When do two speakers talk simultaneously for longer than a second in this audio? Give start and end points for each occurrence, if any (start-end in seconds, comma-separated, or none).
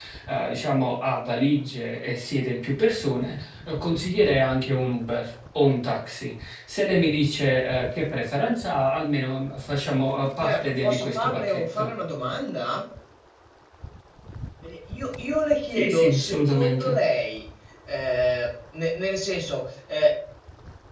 10.4-11.9, 15.7-17.0